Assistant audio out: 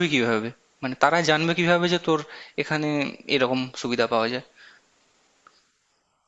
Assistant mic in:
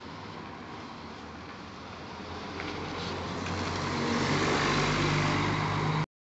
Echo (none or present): none